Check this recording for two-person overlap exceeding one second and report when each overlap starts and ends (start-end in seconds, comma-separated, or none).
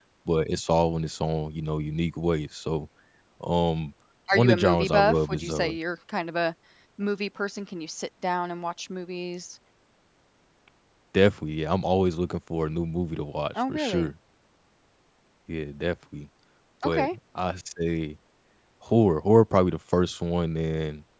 4.3-5.7